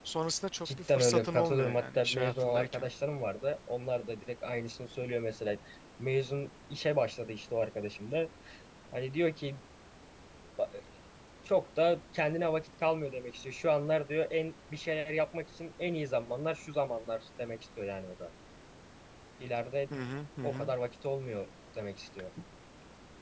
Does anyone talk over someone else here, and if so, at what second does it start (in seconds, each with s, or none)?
0.7 s